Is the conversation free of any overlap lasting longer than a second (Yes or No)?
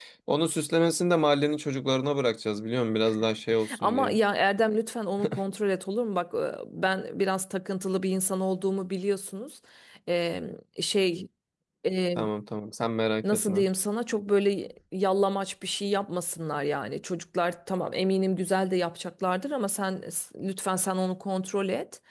Yes